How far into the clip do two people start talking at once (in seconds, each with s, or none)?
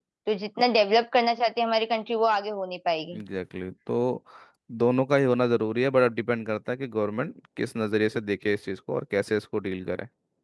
none